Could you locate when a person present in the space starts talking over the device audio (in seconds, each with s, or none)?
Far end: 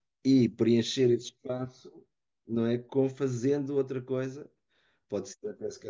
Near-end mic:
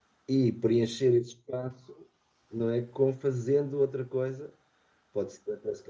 none